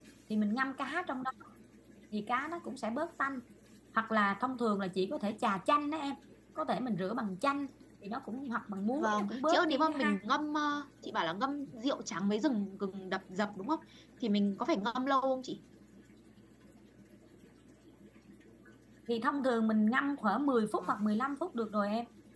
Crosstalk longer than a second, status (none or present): present